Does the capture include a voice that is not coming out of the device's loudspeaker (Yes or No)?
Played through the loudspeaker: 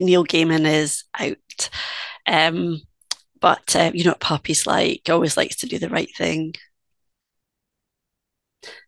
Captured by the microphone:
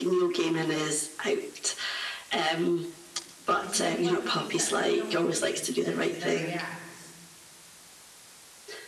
Yes